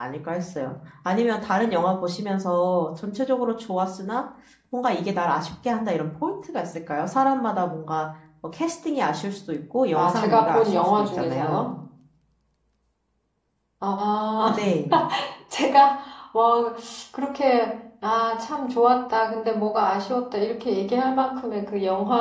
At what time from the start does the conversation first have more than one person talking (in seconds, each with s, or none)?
10.0 s